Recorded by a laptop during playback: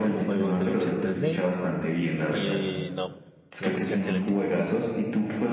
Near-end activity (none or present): present